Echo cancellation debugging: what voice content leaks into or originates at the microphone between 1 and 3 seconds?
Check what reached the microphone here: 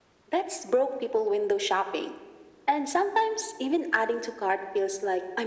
echo only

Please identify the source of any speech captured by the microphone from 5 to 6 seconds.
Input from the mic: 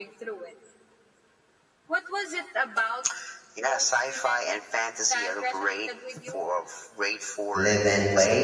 echo only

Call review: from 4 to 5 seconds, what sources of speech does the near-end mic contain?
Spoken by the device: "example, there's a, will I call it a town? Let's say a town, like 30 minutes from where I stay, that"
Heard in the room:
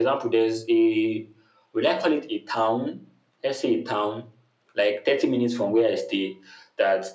echo only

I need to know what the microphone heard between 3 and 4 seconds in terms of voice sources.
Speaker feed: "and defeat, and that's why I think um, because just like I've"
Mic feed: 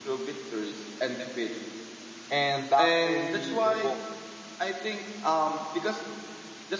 both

